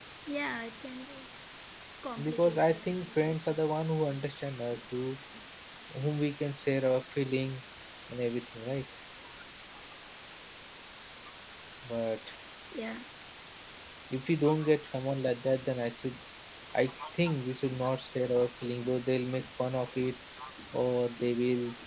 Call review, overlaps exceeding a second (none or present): present